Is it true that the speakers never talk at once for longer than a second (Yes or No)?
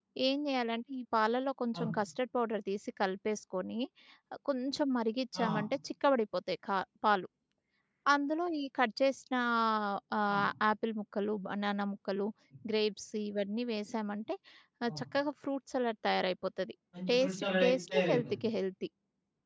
No